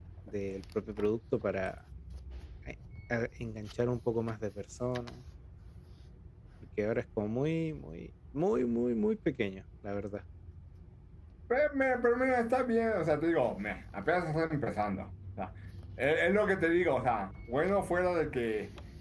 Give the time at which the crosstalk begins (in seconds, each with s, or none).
none